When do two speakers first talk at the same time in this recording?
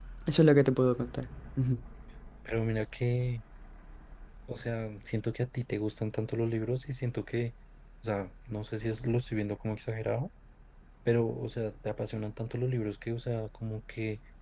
none

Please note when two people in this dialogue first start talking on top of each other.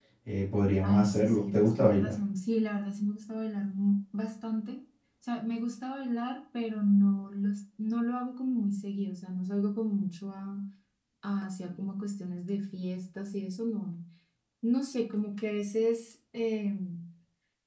0.8 s

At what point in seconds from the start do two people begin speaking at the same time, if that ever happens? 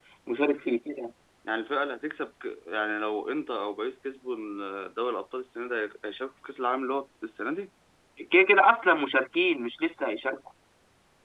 none

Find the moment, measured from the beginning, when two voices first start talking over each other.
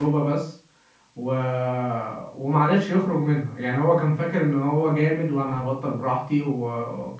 none

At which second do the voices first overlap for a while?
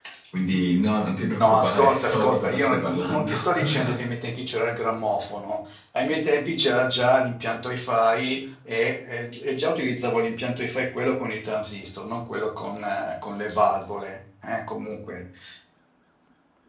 1.4 s

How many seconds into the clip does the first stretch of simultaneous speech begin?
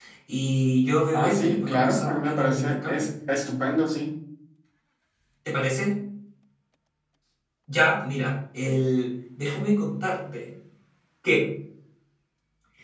1.1 s

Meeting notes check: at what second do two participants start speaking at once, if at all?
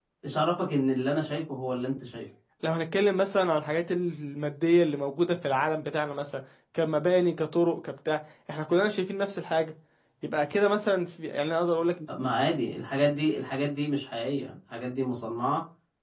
none

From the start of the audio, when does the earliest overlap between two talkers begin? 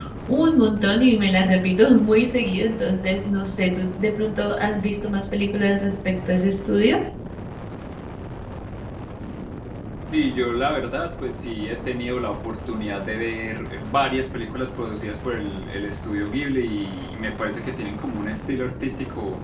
none

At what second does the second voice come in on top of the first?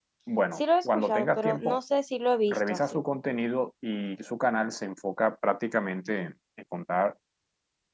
0.5 s

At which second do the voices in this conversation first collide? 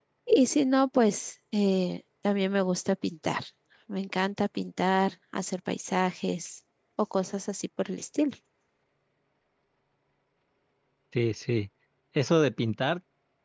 none

